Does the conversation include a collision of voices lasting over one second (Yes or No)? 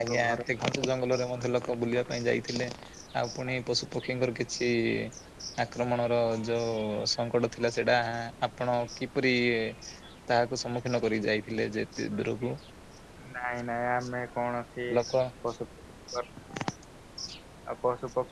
No